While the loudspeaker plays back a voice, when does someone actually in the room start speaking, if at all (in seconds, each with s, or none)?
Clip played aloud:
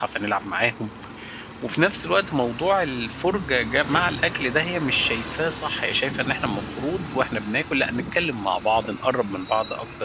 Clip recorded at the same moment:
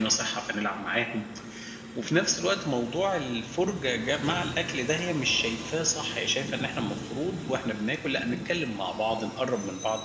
none